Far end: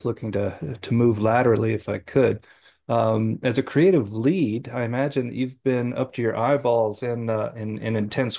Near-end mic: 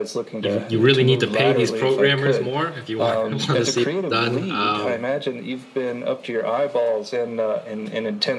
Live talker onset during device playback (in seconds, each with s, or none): 0.4 s